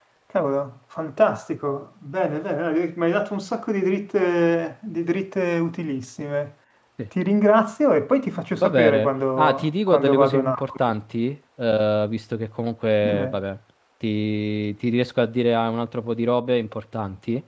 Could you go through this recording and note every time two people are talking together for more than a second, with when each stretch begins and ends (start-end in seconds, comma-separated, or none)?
8.6-10.8